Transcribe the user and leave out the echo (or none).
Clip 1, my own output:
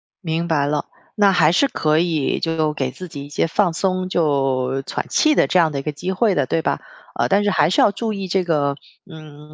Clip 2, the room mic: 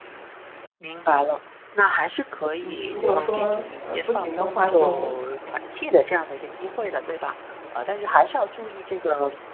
嗯，如果说，呃，不行的话，就